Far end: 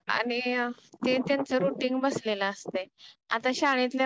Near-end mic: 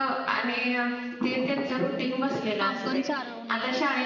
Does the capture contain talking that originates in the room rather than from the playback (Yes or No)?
Yes